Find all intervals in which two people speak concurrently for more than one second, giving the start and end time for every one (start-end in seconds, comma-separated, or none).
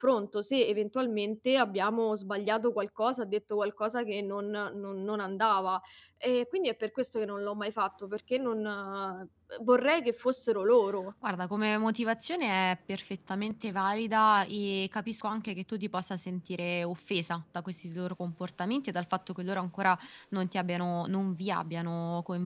none